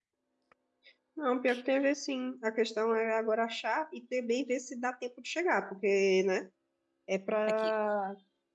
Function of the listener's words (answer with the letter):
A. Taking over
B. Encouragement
B